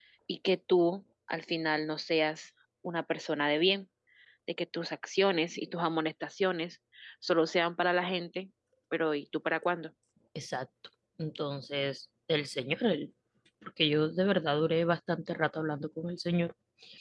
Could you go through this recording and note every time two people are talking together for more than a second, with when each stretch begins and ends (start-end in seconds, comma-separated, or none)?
none